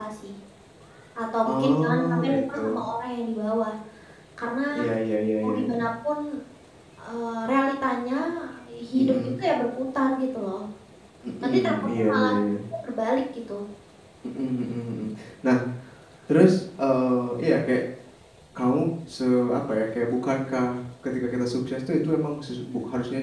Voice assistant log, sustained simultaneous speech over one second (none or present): present